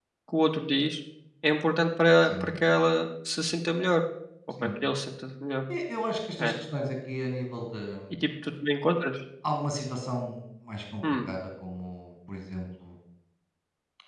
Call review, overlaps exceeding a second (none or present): none